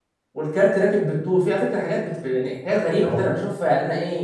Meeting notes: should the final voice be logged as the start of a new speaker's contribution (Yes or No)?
No